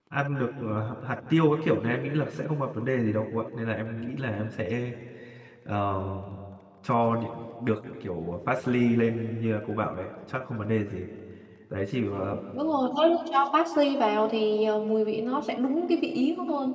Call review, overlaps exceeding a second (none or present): none